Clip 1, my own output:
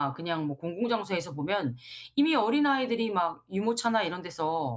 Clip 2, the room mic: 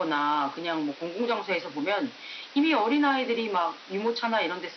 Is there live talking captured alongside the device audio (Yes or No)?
No